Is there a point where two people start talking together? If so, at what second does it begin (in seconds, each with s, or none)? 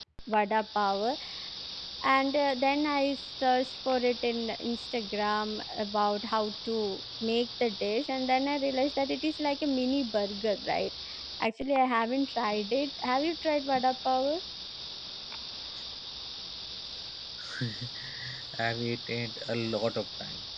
none